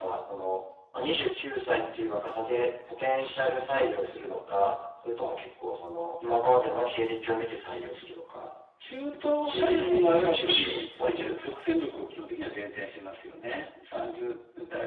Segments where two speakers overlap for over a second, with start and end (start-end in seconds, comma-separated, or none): 9.1-11.5